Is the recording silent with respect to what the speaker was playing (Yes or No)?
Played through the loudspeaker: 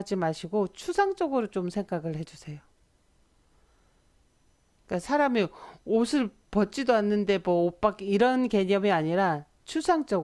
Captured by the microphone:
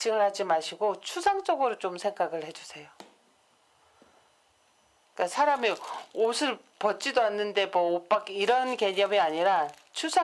No